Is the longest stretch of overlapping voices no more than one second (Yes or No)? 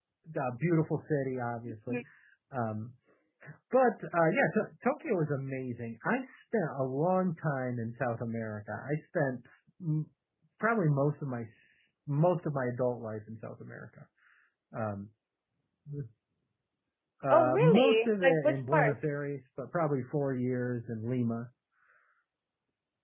No